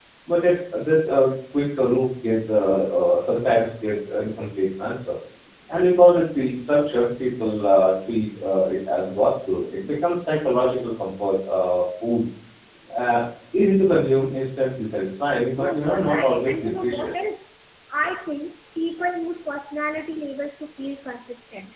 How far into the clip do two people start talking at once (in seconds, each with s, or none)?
15.6 s